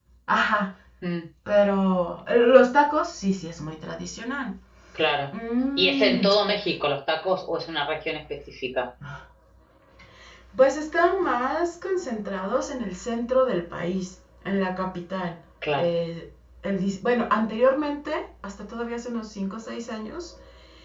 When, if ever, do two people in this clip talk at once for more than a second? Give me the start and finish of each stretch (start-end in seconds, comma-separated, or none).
none